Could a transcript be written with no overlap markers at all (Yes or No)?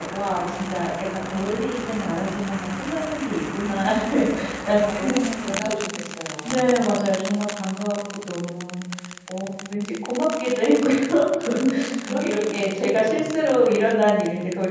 No